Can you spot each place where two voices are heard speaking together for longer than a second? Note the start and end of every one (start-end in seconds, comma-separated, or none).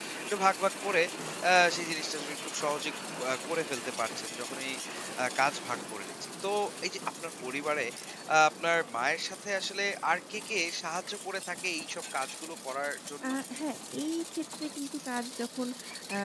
none